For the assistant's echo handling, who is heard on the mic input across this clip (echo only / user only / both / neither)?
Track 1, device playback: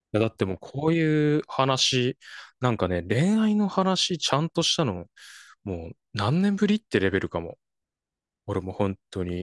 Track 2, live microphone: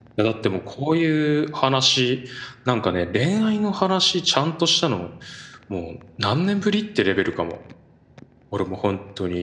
echo only